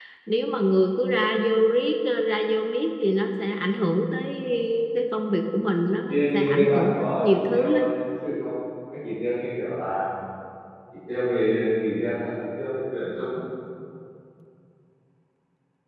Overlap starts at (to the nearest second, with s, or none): 6 s